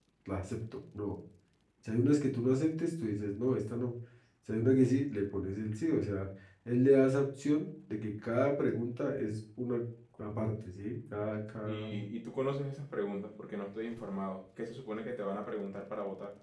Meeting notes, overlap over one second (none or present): none